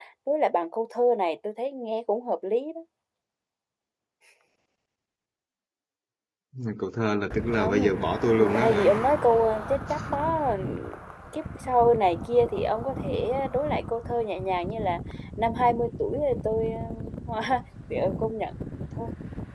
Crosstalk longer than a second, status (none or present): none